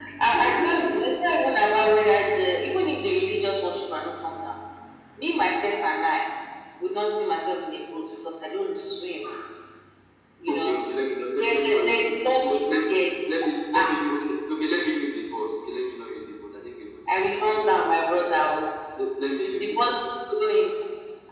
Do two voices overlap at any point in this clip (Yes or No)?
Yes